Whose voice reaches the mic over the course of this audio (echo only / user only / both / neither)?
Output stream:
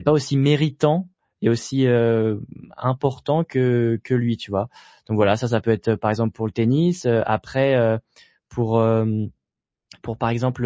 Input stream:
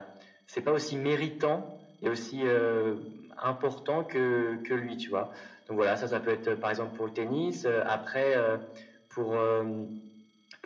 echo only